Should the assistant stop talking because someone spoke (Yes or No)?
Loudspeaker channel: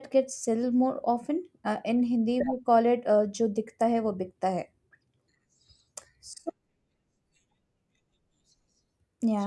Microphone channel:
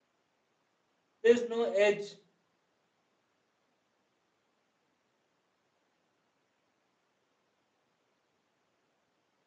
Yes